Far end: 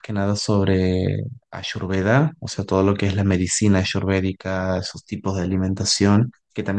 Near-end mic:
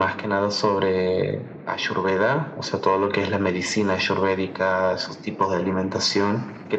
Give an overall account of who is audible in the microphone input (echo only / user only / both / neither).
echo only